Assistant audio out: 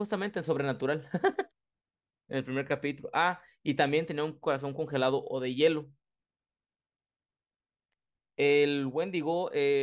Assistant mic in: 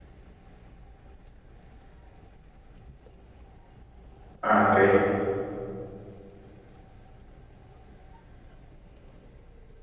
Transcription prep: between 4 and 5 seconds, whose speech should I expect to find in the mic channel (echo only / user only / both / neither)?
user only